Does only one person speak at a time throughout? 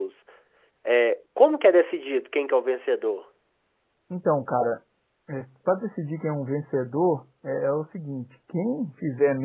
Yes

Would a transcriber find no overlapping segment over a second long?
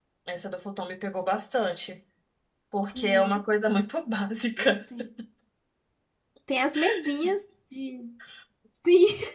Yes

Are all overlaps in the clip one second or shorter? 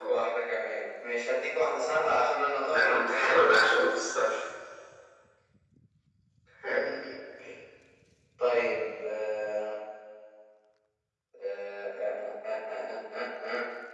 Yes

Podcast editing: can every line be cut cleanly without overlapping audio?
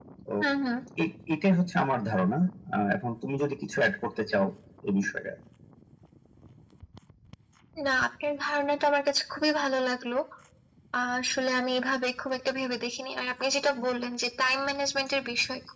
Yes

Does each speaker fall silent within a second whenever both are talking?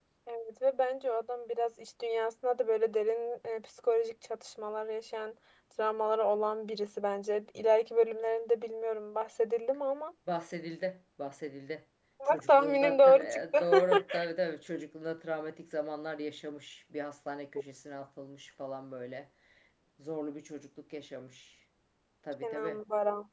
No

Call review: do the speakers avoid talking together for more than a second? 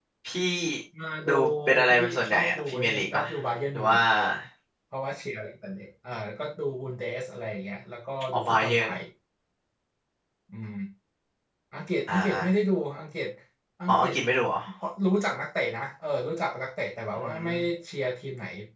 No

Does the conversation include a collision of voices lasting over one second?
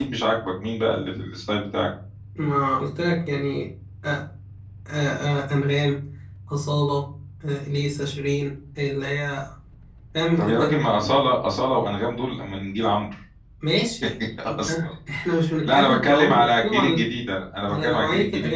Yes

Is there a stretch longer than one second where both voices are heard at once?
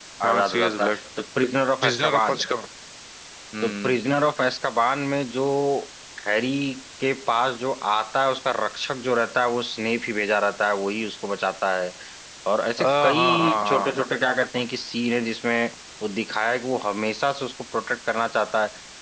Yes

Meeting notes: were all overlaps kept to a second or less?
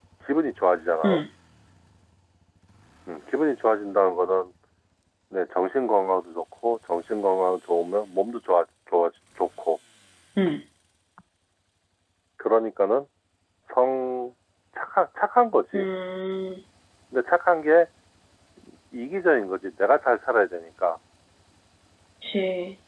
Yes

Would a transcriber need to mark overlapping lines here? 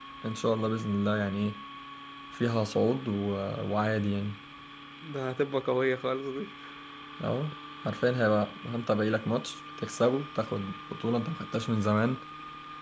No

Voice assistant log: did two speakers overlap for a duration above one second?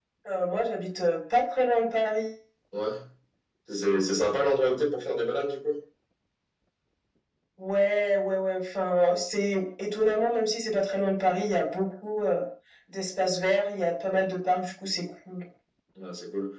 No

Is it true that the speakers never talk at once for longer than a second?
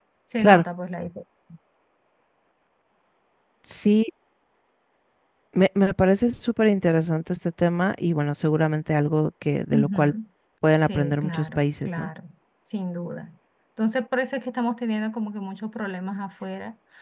No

